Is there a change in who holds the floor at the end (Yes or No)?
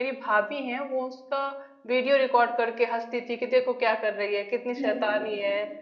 No